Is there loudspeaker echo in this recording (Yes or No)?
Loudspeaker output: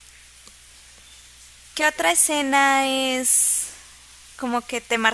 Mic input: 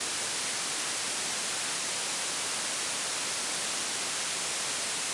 No